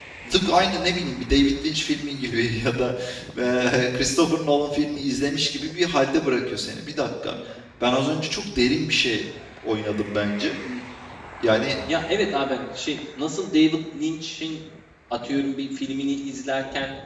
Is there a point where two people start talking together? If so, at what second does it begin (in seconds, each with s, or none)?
none